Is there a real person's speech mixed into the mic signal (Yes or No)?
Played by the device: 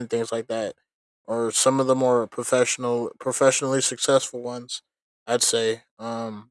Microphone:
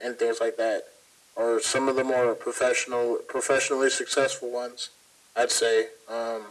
No